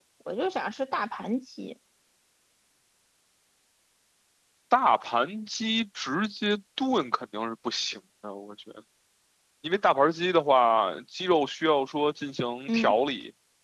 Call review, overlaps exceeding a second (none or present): none